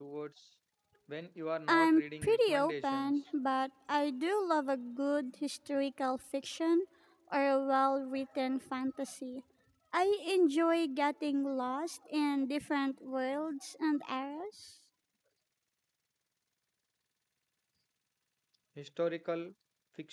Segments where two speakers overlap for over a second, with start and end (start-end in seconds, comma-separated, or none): 1.7-3.2